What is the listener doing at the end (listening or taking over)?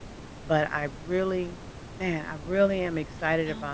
listening